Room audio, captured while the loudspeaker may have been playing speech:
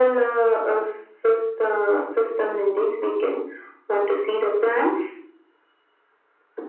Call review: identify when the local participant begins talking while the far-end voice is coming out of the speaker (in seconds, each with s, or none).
none